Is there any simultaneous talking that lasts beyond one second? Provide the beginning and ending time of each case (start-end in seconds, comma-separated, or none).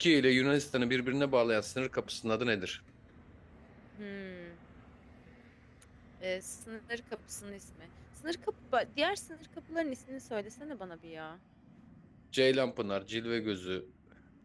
none